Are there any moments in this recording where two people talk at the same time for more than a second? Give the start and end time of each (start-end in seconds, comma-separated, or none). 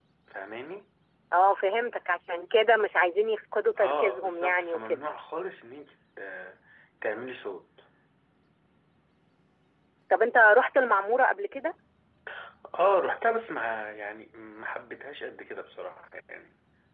3.8-5.0